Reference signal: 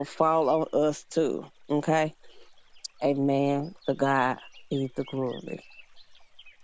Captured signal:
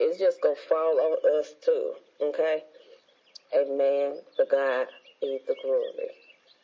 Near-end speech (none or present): none